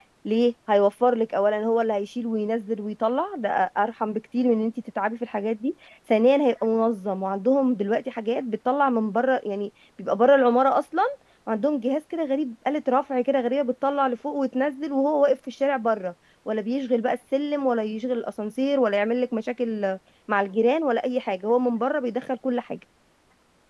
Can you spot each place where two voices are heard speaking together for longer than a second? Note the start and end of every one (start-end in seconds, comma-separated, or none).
none